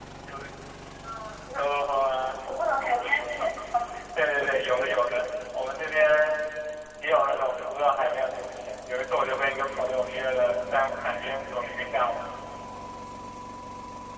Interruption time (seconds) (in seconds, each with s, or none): none